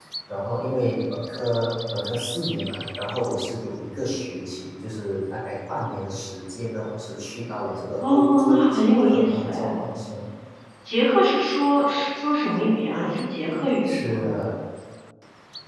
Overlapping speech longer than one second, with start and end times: 8.1-9.7

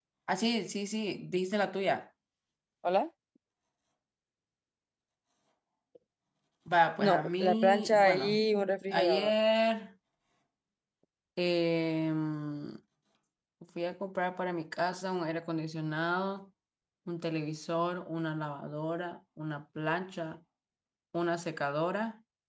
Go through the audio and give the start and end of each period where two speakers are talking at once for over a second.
7.1-8.4

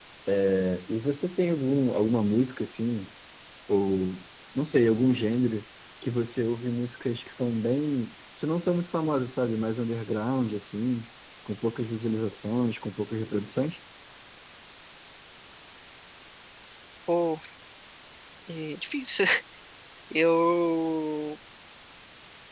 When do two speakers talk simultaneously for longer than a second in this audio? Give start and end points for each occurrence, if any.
none

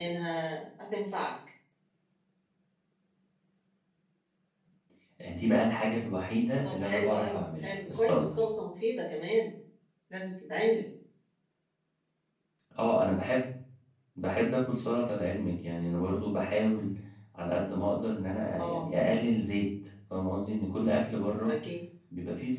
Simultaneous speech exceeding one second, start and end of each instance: 6.7-8.3

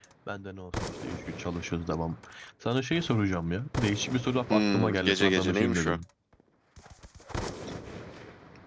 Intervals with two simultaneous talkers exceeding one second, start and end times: 4.5-6.0

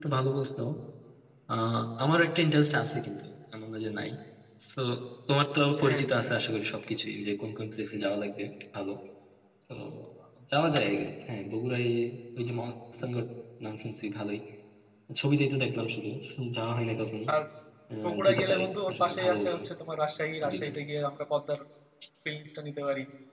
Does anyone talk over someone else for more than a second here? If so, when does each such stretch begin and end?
18.0-19.6

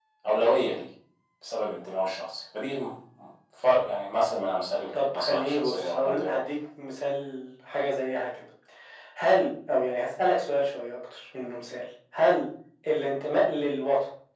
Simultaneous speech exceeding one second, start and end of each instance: 4.9-6.4

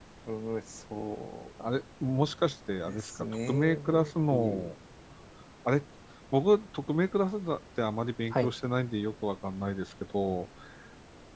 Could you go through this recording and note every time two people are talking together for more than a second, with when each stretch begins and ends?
2.9-4.7

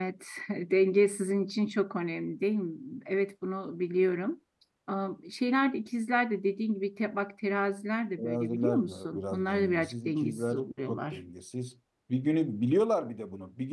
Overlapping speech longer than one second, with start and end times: 8.2-11.2

